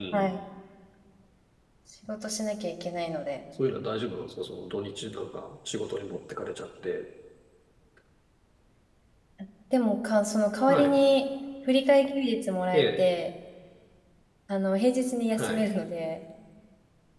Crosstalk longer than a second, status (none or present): none